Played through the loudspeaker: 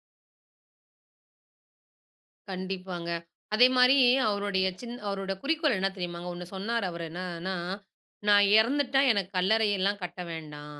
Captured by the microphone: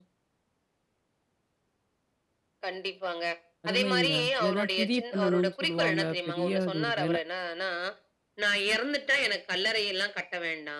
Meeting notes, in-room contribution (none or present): present